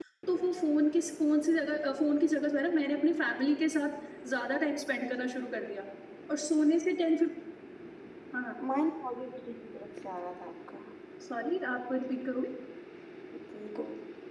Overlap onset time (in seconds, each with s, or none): none